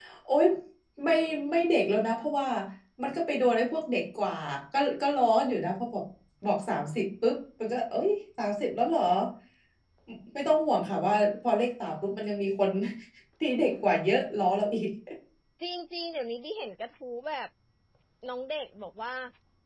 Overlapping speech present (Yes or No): No